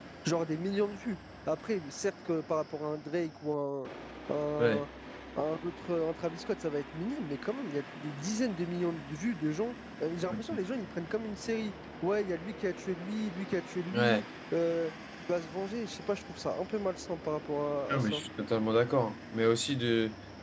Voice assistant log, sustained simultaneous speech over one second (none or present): none